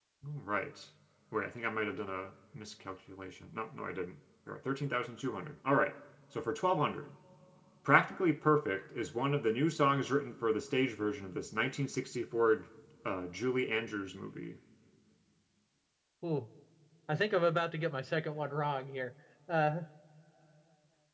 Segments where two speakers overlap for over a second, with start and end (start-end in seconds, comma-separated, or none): none